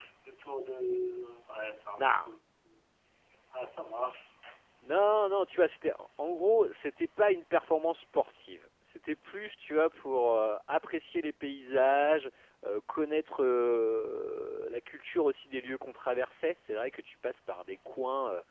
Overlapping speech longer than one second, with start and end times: none

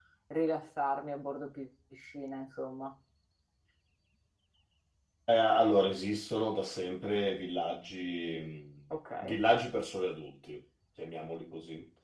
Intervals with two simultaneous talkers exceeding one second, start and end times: none

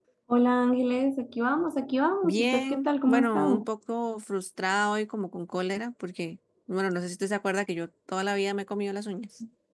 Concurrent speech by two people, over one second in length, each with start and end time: 2.2-3.7

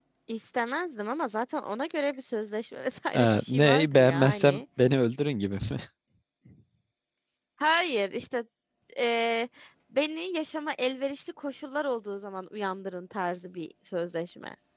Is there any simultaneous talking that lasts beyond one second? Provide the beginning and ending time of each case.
3.1-4.6

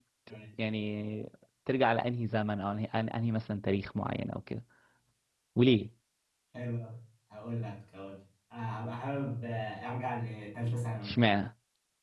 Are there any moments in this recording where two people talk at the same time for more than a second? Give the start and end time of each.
none

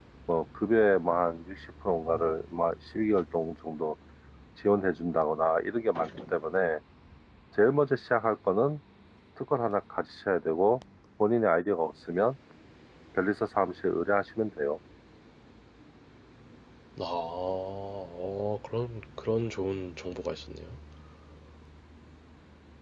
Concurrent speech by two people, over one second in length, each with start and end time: none

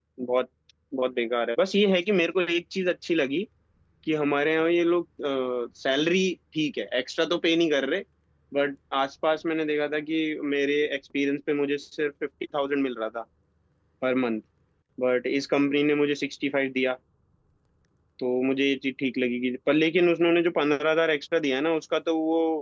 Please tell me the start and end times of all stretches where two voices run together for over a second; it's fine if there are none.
none

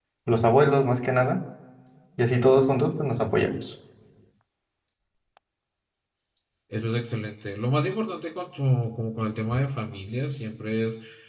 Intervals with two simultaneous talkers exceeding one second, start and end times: none

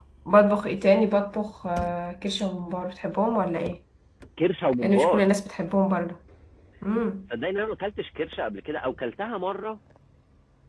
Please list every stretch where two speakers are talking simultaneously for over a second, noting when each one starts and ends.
none

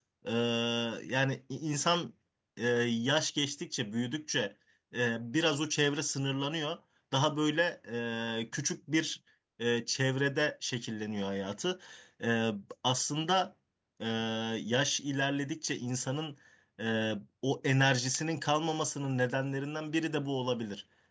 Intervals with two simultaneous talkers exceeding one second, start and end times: none

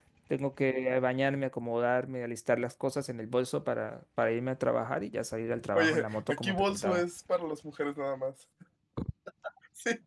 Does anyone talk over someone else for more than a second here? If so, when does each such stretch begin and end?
5.8-7.0

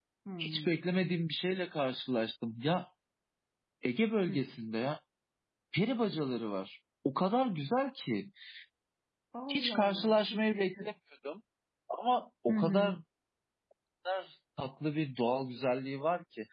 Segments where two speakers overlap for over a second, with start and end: 9.5-10.9

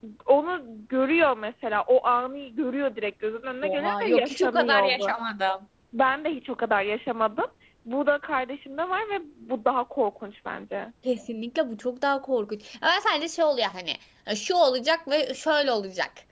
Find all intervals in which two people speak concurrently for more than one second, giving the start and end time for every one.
3.6-5.0

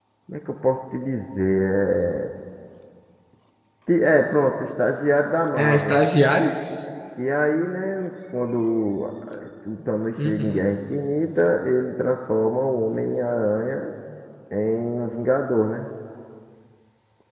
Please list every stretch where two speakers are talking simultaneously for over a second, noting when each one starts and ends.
none

